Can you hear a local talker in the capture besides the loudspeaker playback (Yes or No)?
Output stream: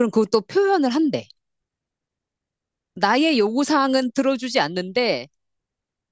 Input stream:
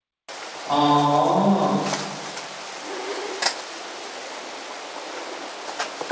Yes